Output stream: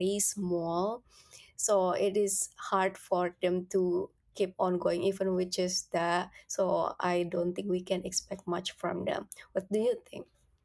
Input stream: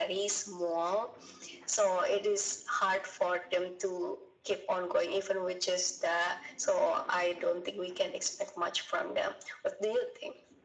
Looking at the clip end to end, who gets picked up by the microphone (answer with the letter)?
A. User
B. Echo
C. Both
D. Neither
B